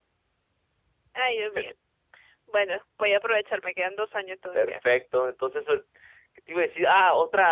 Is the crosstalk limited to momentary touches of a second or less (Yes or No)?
Yes